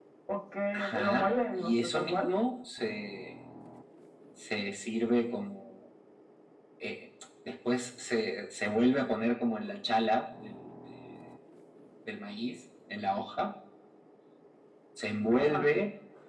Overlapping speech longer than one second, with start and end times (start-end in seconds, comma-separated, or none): 0.7-2.3